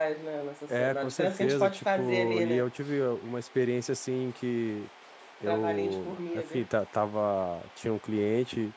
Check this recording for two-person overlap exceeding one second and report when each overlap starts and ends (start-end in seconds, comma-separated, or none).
0.7-2.7, 5.5-6.7